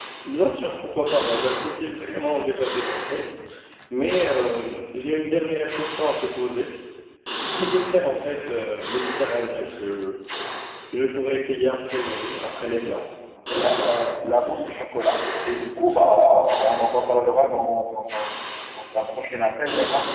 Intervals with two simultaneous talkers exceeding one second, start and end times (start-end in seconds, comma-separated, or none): none